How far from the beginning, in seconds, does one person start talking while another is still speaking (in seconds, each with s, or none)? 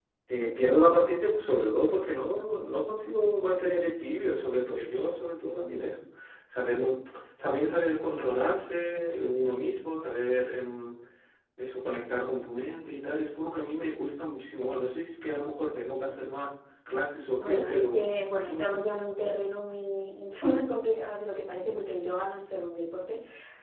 17.4 s